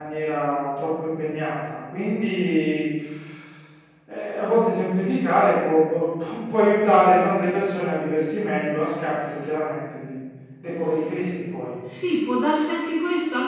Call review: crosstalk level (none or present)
none